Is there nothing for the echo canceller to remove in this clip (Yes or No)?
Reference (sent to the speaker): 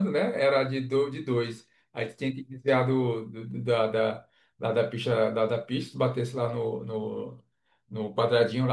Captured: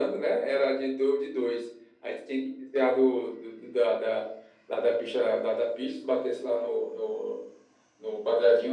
No